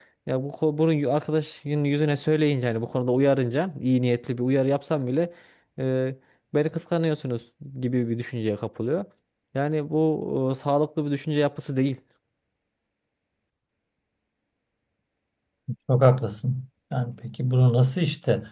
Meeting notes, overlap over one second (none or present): none